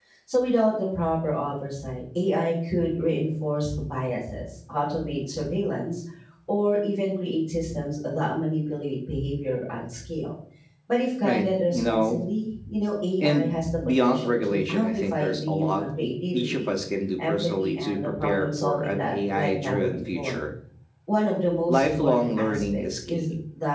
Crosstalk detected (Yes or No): Yes